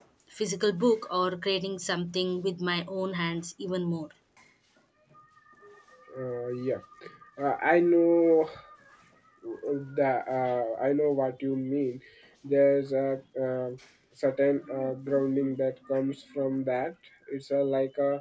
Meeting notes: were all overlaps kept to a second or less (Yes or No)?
Yes